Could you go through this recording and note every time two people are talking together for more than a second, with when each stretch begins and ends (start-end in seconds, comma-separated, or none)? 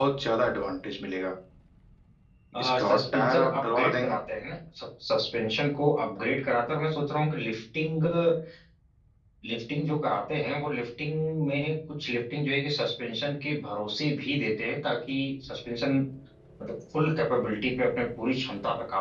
2.8-4.1